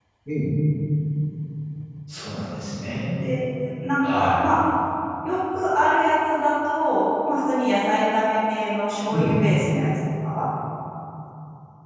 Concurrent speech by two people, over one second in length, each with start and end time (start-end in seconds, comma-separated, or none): none